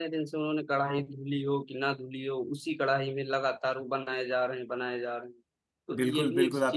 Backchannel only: No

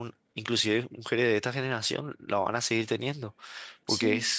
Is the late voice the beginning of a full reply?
No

